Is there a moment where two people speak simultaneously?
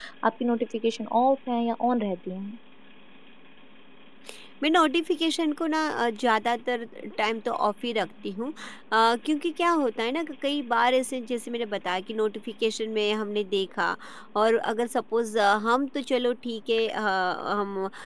No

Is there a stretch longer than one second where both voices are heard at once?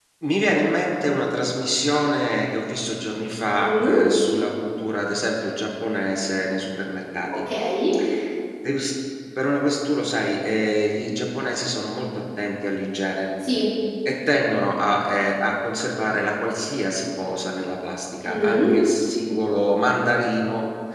No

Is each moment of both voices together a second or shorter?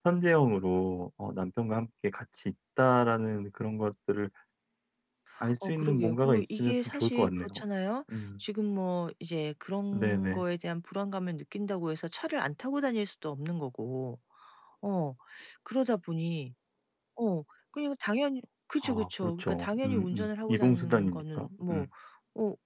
No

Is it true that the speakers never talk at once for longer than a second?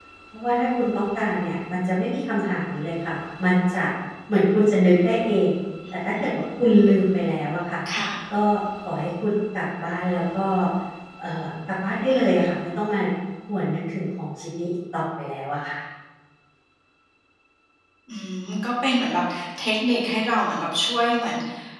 Yes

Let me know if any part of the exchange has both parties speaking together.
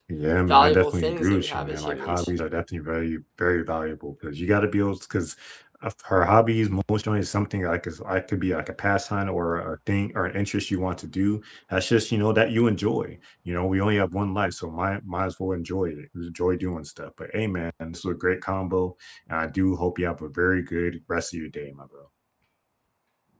Yes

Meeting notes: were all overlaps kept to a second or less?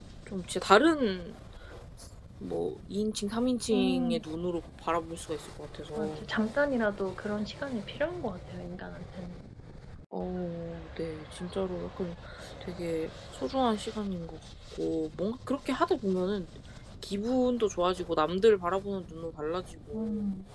Yes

